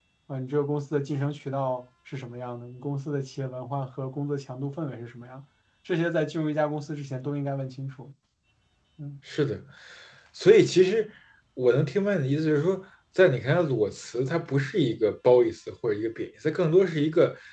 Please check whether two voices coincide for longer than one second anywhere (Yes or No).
No